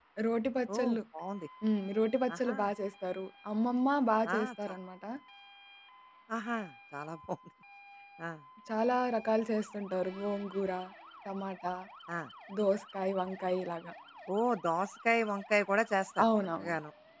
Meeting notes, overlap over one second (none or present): none